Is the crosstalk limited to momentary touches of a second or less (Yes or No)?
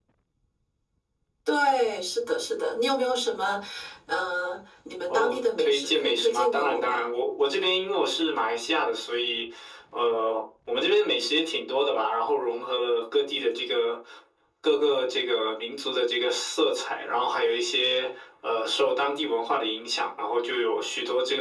No